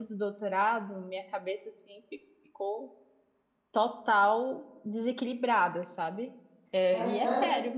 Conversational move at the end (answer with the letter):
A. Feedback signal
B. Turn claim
B